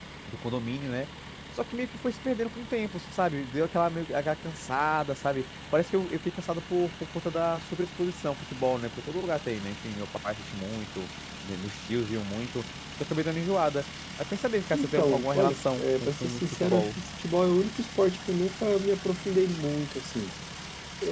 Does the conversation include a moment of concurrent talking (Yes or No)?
Yes